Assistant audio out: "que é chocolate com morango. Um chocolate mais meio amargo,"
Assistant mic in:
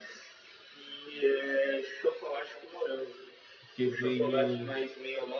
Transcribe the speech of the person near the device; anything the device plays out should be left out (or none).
Porque vem o,